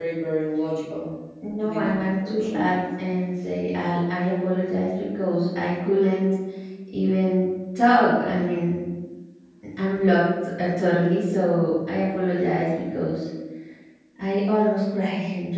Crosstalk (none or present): present